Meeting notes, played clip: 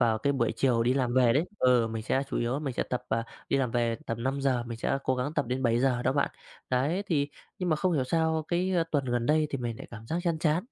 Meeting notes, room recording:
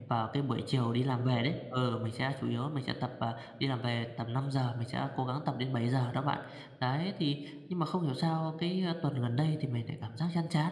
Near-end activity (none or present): none